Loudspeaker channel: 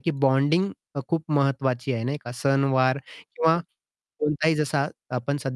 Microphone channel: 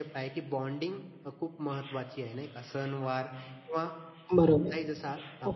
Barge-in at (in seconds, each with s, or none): 4.3 s